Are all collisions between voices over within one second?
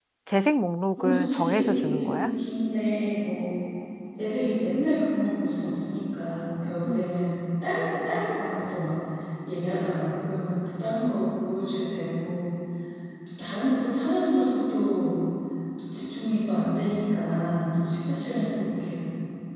No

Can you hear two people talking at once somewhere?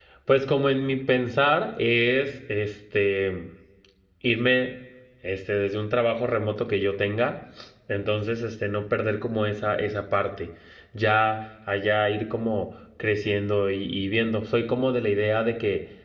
No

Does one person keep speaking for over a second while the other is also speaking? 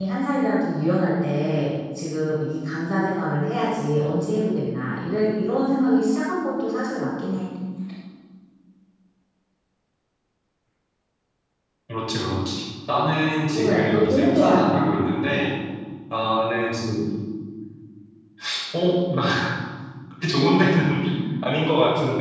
Yes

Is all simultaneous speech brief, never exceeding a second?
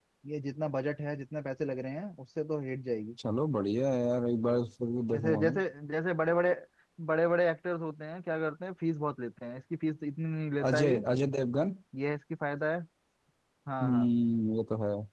Yes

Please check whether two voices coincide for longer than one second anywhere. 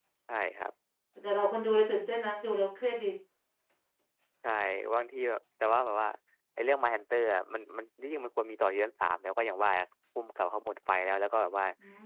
No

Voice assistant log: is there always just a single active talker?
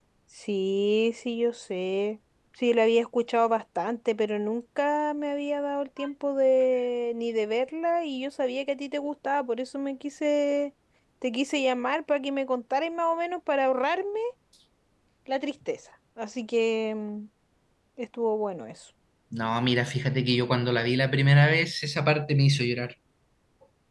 Yes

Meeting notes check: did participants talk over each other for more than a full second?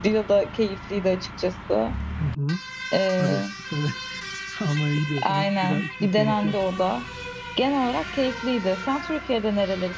Yes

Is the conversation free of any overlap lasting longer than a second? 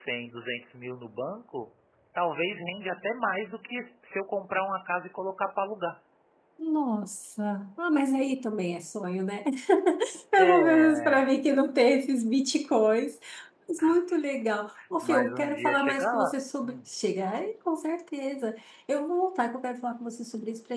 No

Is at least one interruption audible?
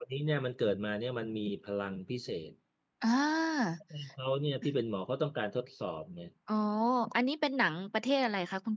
No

